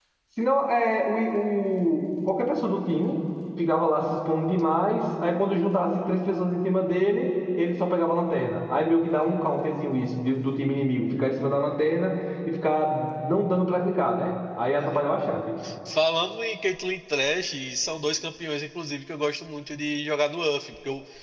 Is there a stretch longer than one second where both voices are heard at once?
No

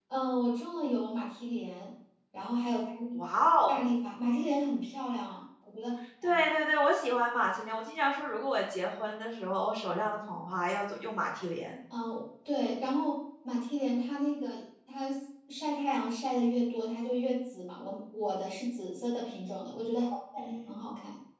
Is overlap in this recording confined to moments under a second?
Yes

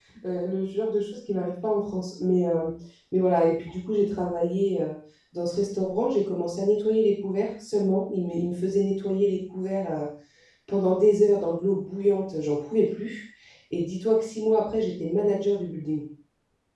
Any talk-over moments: No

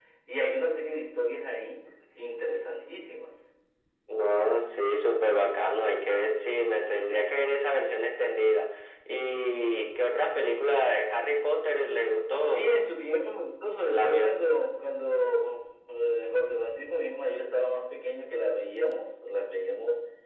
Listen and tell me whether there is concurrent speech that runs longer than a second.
No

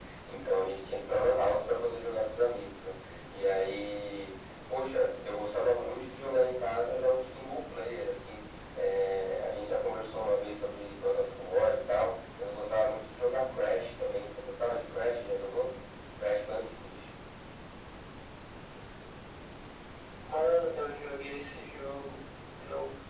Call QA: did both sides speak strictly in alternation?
Yes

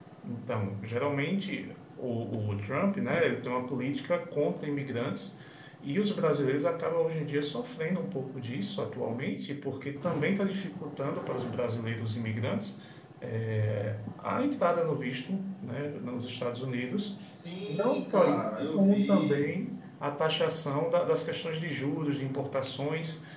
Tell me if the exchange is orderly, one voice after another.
No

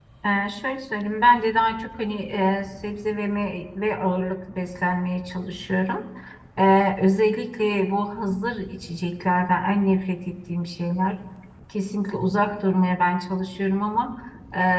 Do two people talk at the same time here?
No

